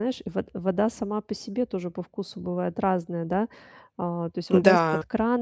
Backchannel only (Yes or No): Yes